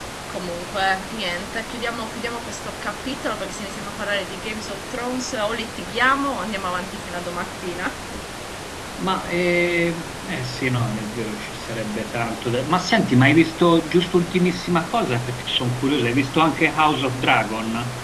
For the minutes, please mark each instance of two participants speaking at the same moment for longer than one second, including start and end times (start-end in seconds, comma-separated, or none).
none